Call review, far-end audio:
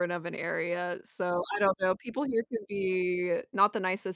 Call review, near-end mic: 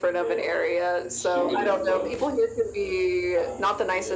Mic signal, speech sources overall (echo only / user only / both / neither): both